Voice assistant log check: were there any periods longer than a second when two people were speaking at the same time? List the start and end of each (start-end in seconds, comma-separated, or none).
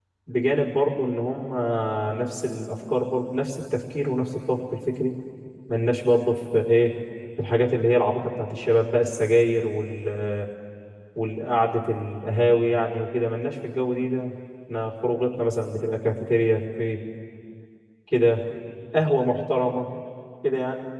none